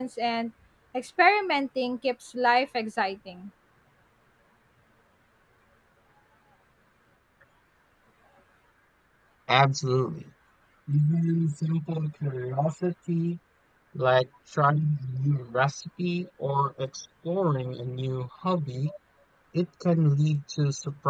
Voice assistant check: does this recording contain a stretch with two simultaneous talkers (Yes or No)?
No